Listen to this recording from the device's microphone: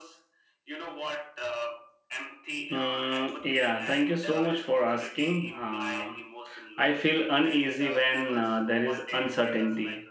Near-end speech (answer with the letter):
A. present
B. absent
A